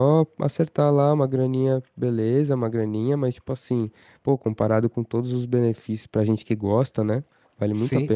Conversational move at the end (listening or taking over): taking over